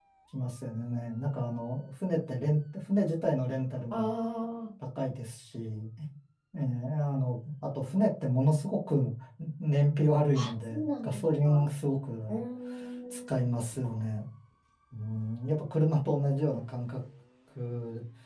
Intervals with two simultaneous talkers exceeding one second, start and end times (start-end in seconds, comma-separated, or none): 10.3-11.7